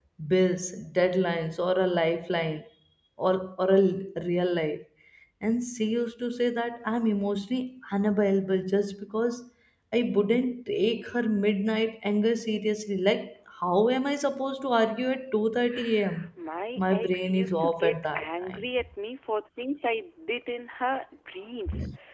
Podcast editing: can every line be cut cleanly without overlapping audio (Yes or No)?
No